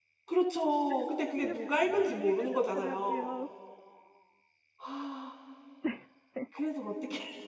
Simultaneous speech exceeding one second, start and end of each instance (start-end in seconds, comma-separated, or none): 1.4-3.3